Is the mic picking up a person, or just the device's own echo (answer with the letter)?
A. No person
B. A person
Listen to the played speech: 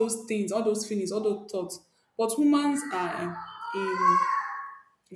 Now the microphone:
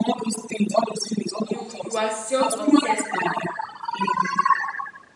B